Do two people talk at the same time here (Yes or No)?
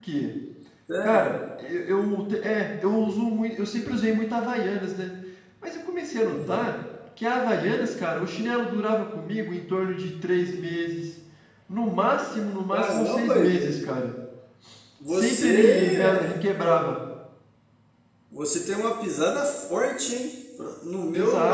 Yes